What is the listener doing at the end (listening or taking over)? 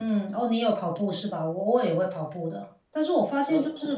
listening